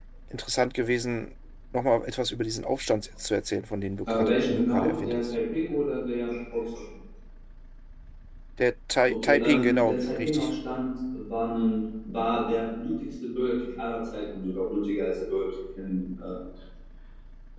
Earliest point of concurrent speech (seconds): 4.1 s

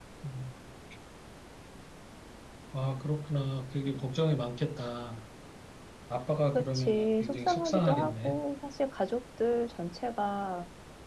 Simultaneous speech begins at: 6.6 s

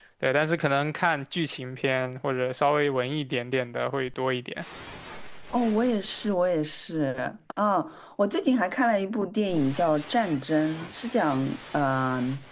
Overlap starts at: none

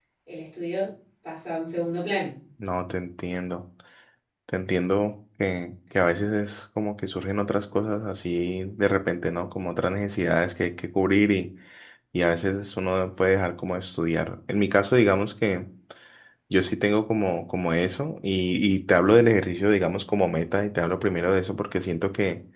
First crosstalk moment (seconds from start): none

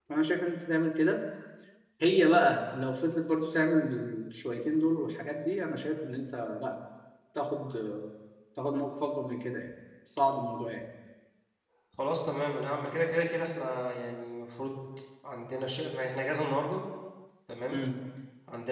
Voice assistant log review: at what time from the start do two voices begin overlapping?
none

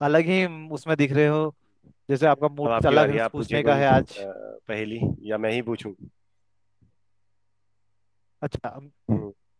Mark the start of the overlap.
2.6 s

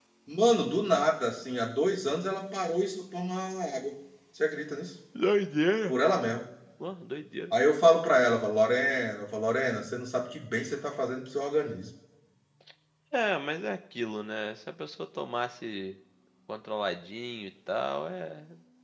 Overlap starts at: none

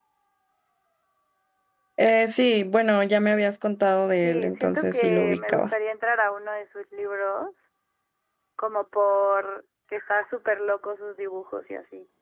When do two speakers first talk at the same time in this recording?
4.2 s

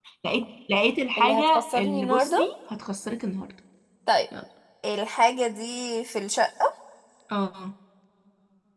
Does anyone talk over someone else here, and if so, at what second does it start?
1.2 s

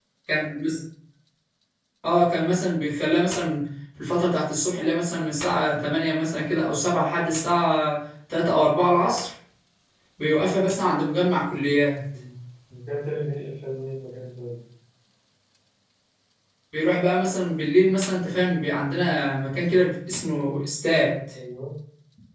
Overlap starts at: none

